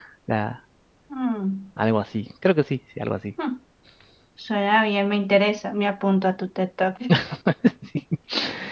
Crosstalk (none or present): none